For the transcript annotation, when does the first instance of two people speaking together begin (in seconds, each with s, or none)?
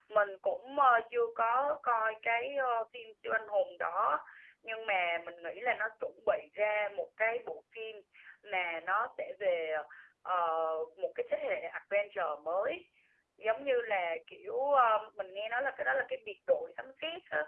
none